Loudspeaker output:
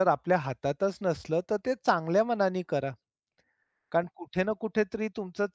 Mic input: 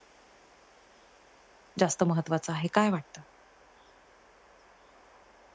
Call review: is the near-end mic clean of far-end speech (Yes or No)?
Yes